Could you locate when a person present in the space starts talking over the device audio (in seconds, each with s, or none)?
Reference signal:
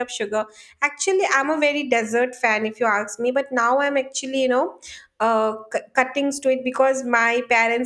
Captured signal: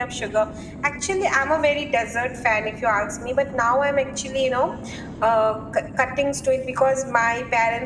none